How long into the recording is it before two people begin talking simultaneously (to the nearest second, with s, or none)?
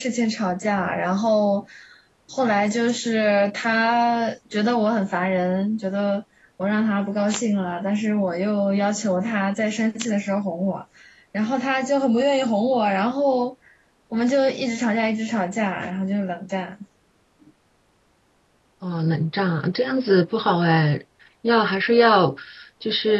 none